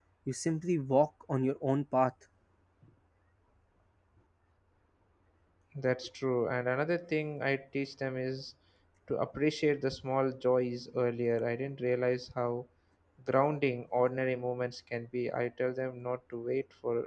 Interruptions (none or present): none